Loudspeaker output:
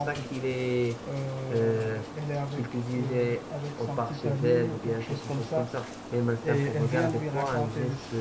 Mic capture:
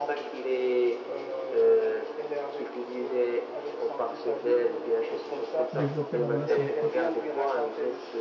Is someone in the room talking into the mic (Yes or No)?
Yes